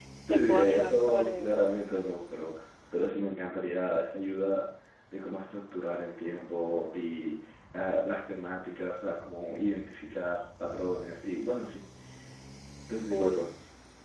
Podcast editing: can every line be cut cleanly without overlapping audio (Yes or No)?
No